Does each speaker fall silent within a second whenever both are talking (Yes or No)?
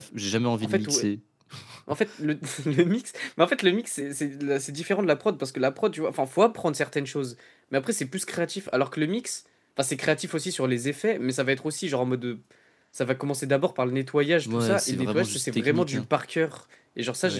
No